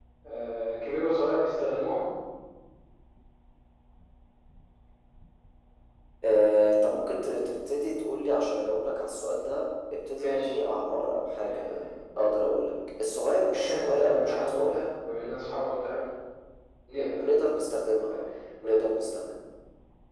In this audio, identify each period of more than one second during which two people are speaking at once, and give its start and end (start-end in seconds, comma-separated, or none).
13.5-14.8